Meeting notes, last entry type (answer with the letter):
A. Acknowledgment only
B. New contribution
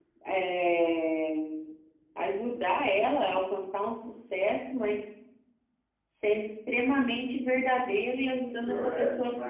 B